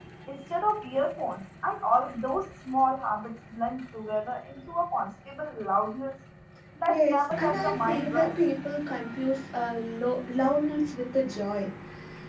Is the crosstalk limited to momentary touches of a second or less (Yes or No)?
No